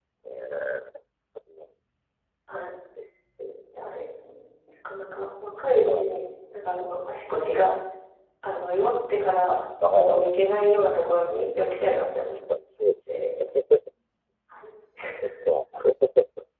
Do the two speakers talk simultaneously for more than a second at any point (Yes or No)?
No